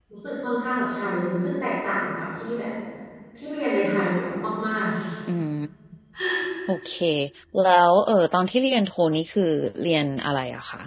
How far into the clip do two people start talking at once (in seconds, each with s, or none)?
none